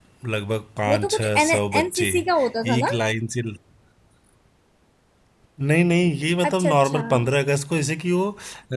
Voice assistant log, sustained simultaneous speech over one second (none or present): present